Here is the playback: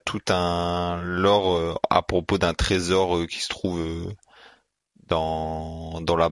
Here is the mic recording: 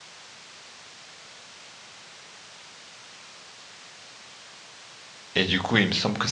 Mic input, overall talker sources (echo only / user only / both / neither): user only